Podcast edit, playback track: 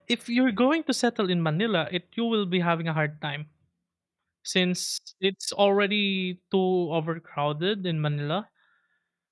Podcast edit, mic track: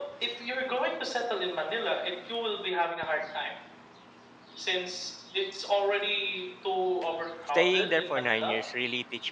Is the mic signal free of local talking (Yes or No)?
No